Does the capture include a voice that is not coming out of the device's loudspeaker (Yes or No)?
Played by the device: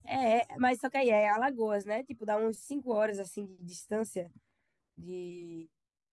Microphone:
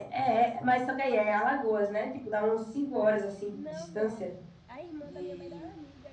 Yes